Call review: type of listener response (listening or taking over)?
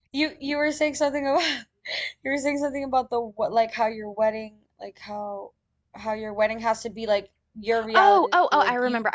taking over